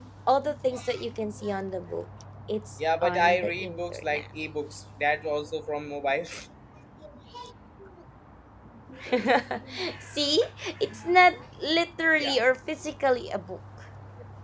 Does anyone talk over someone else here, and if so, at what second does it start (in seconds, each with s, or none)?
3.0 s